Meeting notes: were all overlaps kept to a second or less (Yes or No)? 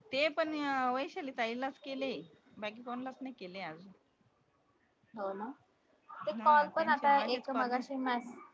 No